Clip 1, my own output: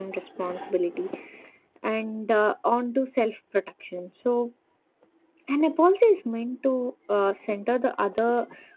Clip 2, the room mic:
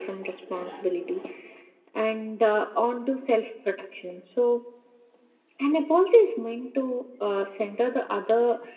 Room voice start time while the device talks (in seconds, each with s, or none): none